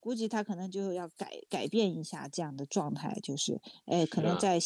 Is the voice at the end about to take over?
No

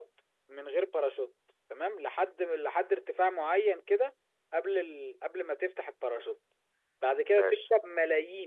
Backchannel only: Yes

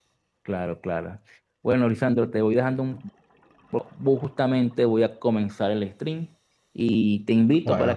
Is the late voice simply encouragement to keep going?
Yes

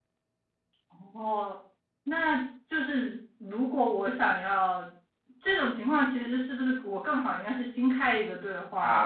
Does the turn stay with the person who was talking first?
No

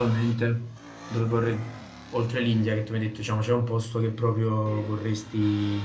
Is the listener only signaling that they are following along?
Yes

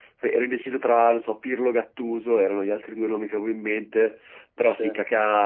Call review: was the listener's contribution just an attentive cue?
Yes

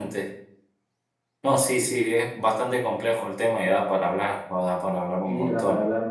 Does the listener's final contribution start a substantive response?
Yes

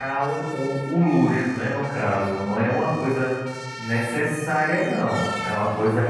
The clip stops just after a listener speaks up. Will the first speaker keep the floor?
Yes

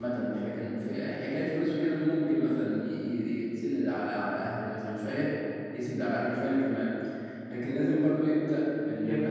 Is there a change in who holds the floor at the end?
No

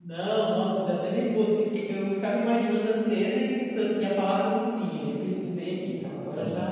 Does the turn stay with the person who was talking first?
No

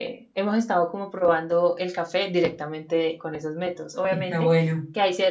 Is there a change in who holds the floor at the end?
No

